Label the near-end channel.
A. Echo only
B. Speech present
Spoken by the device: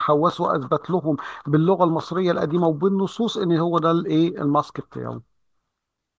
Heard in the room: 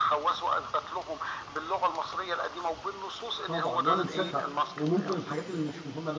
B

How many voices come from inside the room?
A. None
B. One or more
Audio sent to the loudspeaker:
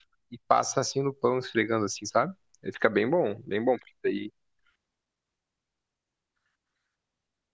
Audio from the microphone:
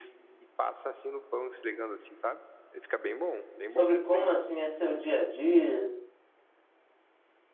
B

